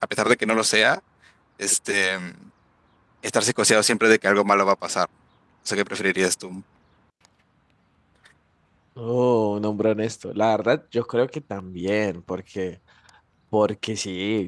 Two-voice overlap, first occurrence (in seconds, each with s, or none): none